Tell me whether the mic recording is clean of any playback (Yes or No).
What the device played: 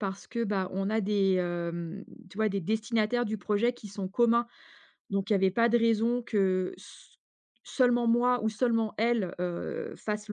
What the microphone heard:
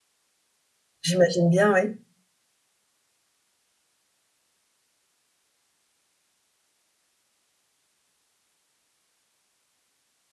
Yes